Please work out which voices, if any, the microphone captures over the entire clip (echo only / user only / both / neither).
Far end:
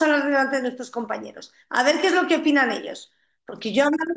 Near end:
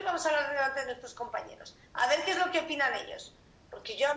echo only